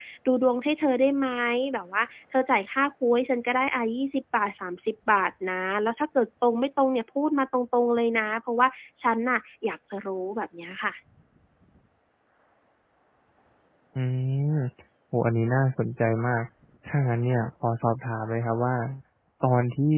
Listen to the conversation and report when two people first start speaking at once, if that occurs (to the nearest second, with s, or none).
none